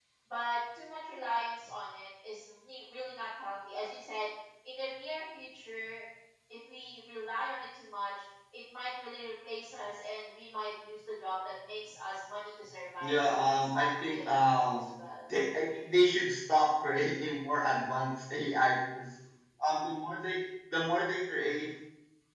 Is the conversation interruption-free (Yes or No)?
No